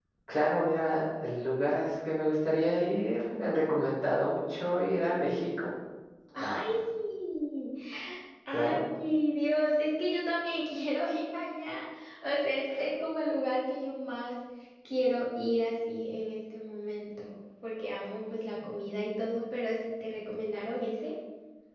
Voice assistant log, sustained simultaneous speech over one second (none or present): none